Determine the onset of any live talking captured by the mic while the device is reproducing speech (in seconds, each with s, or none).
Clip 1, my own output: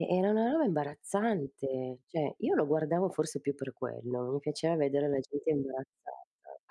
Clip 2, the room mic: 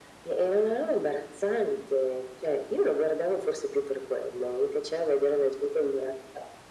none